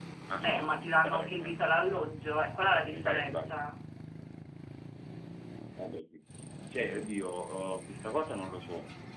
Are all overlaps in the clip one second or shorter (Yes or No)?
No